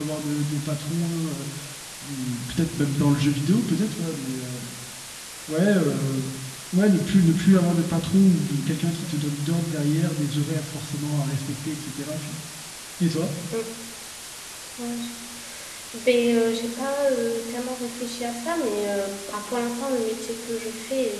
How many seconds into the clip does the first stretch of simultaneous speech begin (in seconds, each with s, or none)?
none